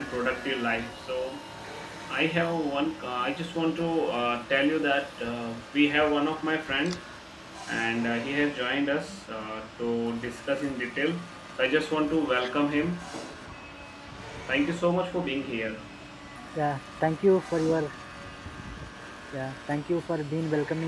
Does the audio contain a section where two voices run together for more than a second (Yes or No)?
No